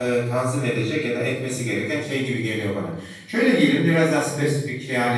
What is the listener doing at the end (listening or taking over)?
listening